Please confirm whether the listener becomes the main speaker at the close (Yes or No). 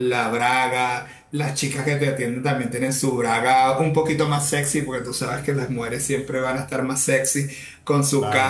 No